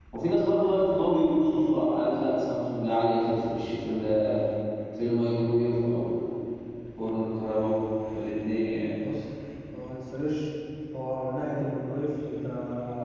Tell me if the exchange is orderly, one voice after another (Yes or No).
Yes